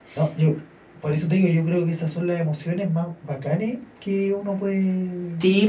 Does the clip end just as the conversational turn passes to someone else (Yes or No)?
Yes